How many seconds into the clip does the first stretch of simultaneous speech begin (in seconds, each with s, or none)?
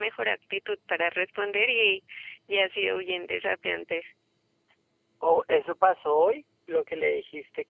none